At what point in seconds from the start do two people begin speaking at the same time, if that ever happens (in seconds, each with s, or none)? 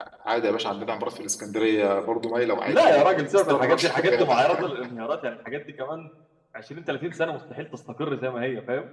2.6 s